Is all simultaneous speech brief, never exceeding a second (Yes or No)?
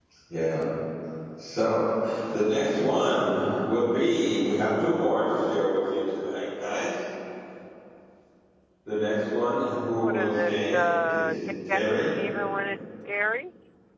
No